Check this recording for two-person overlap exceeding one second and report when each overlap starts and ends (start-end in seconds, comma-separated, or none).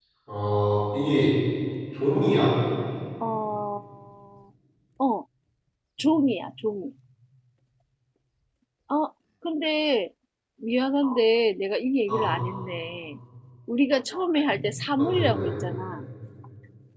none